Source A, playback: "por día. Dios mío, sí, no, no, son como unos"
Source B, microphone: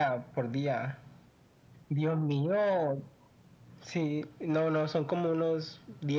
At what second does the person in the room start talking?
none

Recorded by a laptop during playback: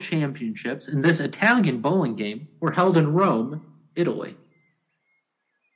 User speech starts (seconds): none

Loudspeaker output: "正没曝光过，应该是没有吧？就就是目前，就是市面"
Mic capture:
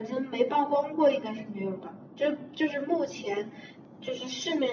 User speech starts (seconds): none

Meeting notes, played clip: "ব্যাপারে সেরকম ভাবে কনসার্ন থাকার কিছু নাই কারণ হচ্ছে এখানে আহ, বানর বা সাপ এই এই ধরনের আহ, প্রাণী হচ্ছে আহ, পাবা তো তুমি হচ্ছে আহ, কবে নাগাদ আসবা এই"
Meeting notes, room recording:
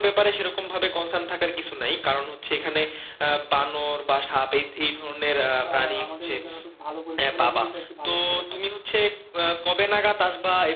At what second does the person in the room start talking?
6 s

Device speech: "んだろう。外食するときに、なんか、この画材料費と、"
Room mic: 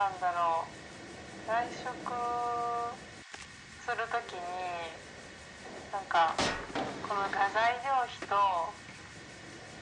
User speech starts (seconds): none

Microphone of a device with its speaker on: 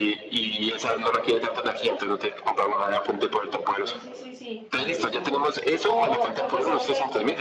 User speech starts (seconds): 4 s

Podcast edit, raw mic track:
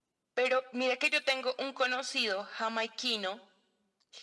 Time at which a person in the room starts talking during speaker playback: none

